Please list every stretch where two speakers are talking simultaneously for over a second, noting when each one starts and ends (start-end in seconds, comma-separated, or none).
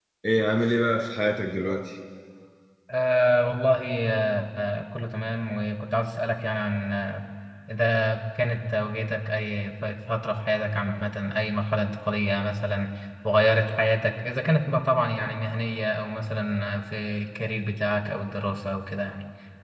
none